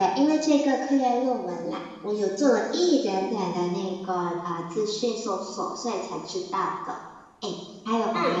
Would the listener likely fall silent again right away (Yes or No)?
Yes